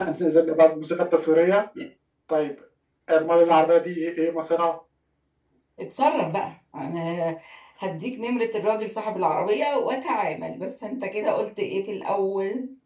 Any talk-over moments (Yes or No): No